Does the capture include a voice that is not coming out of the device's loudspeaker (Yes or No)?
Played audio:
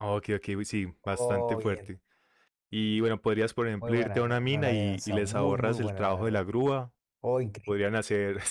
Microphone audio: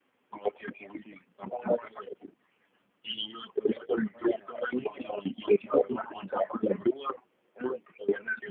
No